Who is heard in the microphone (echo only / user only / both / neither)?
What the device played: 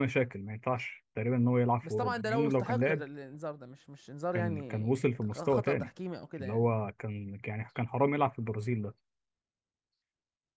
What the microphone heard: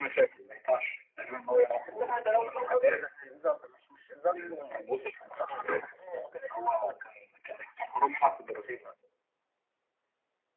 echo only